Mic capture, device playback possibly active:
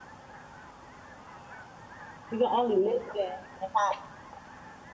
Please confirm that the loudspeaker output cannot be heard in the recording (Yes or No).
Yes